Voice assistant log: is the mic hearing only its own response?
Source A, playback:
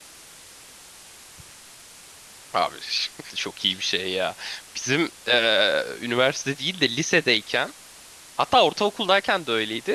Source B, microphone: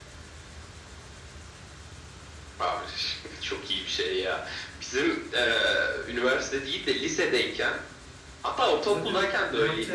No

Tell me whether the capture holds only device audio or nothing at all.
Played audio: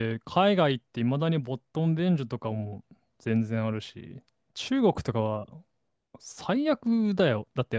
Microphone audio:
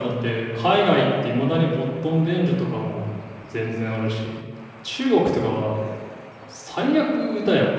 Yes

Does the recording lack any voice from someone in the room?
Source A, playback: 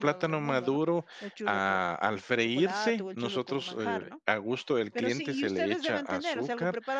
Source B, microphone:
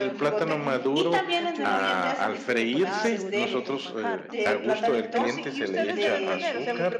No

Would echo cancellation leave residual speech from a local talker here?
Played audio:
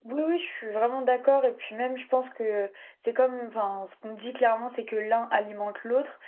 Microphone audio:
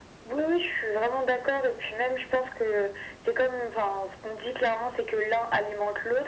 No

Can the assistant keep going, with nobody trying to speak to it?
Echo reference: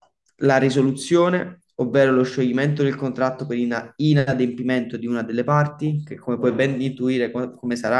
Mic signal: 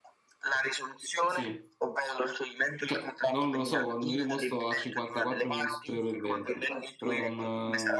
No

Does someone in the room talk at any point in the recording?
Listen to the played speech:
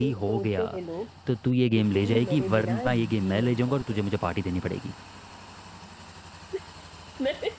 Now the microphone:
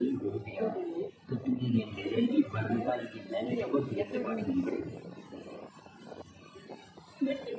Yes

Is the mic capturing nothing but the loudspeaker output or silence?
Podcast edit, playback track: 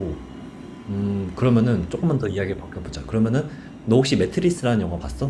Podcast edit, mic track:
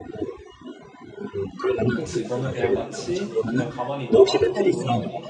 No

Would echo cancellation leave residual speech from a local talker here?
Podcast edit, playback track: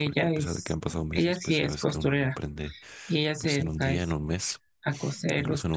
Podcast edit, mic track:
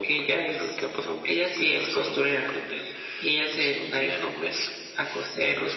No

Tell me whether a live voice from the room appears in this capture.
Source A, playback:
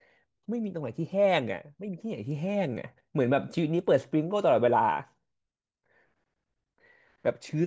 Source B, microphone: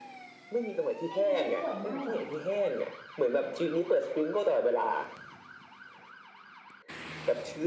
Yes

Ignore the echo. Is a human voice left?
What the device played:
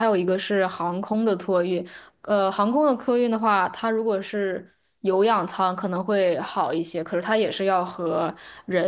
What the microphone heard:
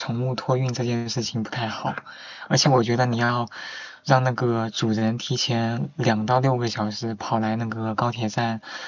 Yes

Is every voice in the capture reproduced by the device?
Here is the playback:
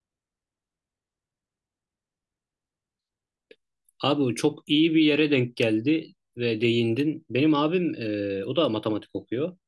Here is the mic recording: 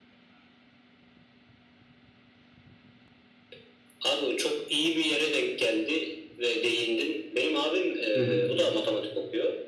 No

